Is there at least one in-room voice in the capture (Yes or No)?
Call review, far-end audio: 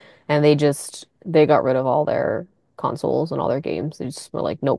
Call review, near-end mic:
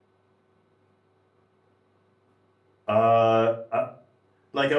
Yes